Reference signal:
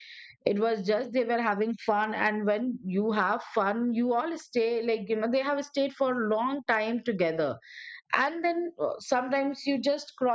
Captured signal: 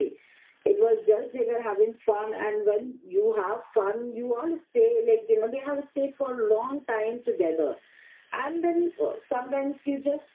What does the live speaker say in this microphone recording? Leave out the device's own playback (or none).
none